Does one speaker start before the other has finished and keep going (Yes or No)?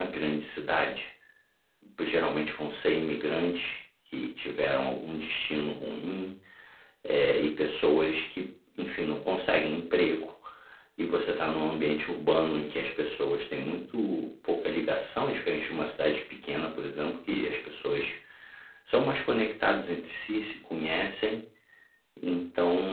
No